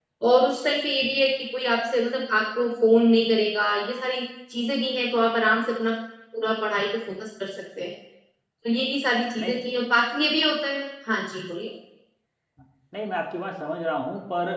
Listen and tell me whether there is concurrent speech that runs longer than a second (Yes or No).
No